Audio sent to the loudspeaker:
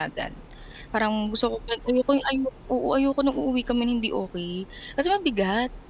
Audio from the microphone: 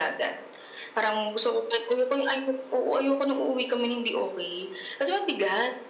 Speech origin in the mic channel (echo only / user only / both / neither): echo only